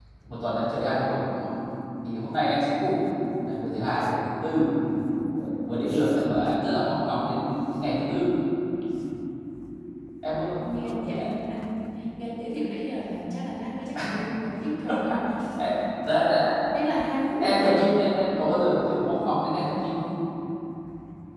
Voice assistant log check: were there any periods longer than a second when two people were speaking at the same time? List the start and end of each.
none

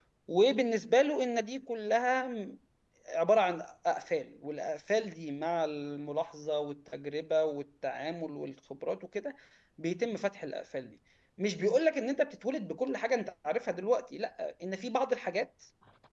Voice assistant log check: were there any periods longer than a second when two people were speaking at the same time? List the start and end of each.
none

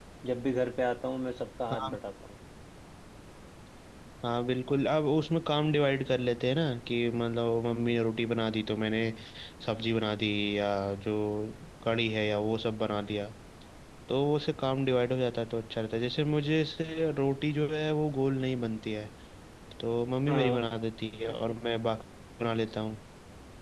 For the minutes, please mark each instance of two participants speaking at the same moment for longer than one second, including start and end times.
none

